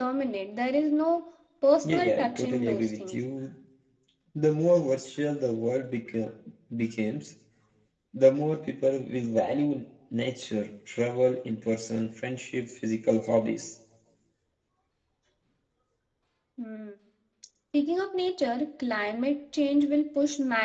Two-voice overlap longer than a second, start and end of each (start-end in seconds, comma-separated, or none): 1.8-3.2